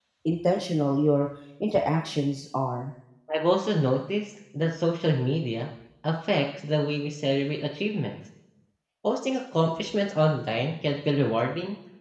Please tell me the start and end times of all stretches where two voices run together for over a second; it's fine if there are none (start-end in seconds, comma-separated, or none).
none